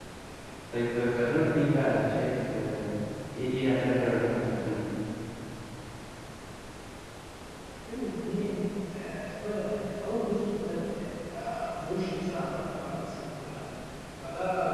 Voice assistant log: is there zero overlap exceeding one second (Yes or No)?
Yes